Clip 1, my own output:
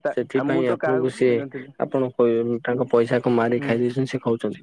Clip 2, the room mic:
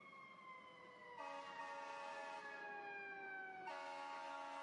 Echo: none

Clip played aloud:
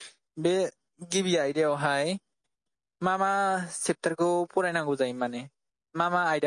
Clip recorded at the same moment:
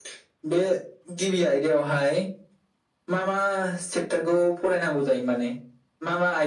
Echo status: present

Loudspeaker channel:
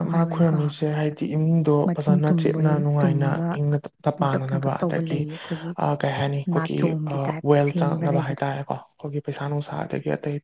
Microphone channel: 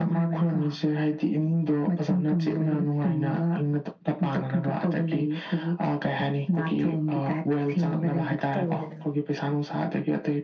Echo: present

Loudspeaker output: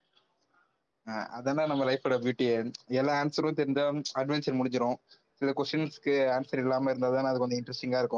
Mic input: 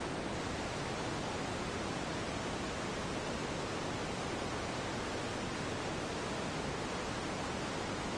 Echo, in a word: none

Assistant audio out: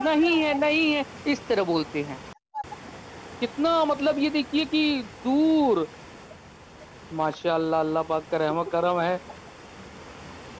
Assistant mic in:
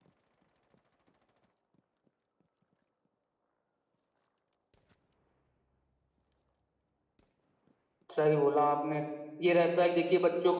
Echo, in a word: none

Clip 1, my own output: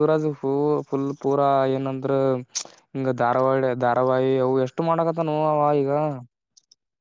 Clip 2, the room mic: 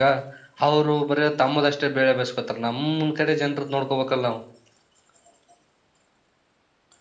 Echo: none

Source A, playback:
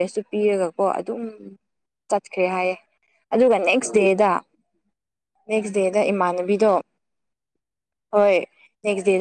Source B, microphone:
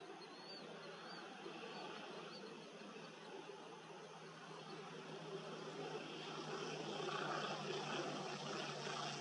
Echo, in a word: none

